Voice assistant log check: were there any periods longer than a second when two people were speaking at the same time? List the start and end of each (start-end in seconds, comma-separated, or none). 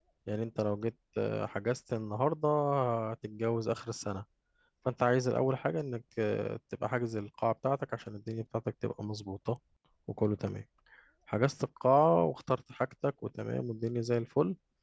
none